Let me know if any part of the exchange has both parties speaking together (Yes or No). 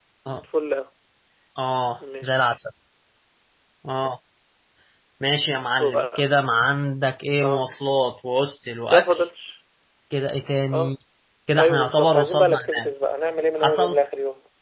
Yes